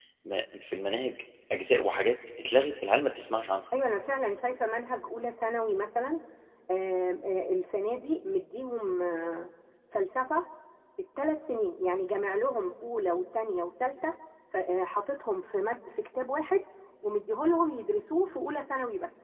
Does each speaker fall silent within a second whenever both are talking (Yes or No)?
Yes